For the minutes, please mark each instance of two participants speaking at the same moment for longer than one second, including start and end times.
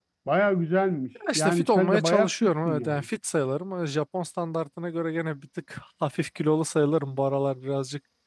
1.4-3.1

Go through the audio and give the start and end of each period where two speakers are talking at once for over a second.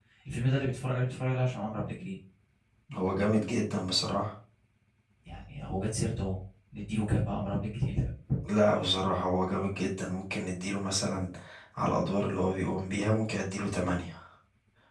none

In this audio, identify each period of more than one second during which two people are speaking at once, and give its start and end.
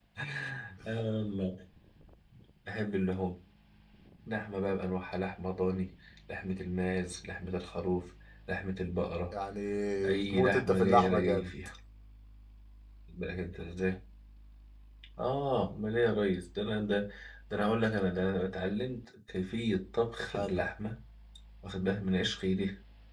10.1-11.5

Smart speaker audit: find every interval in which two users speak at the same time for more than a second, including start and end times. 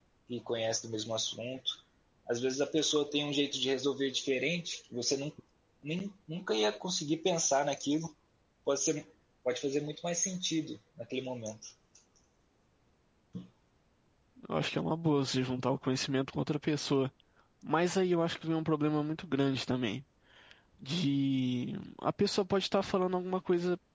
none

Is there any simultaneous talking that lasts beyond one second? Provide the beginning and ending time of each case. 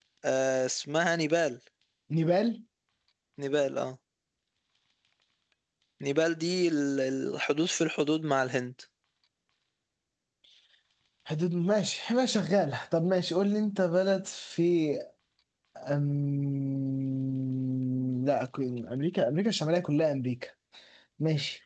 none

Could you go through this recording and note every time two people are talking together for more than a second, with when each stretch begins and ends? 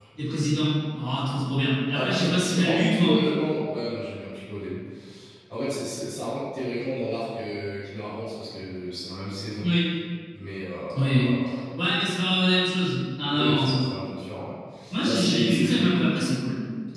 1.9-3.4, 15.1-16.2

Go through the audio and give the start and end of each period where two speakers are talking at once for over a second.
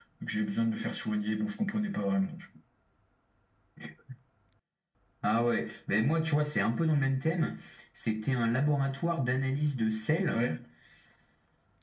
none

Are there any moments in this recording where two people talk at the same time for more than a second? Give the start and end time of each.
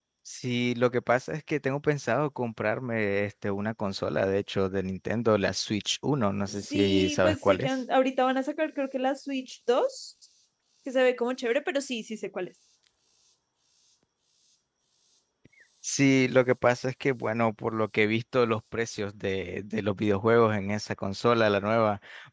6.5-7.7

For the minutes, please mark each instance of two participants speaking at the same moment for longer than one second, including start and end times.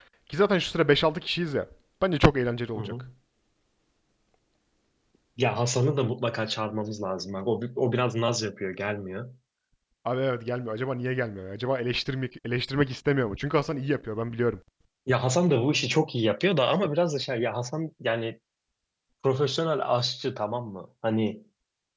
none

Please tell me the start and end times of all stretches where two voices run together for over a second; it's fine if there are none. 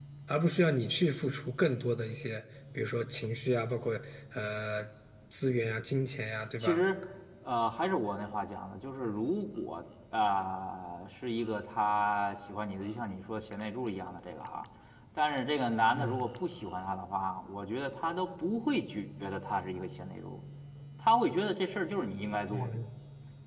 none

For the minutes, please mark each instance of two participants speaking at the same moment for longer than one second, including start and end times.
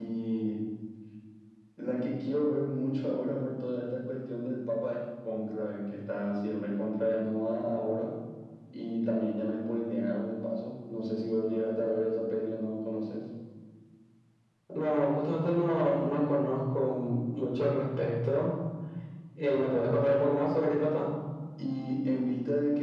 none

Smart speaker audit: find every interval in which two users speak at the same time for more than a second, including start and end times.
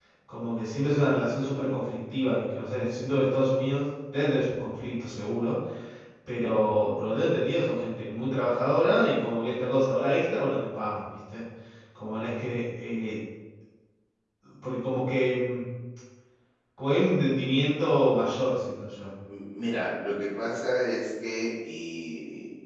none

